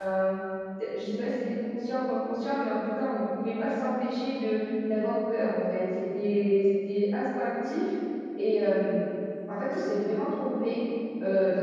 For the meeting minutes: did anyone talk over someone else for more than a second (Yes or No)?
No